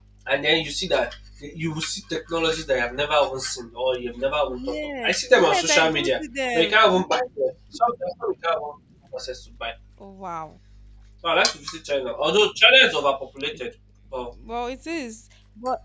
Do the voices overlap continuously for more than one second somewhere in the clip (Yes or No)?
Yes